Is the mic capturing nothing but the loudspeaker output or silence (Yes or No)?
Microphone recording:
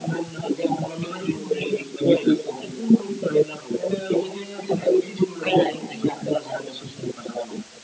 Yes